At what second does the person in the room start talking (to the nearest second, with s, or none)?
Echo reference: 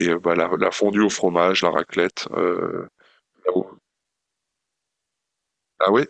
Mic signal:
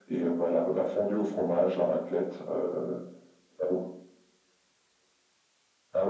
none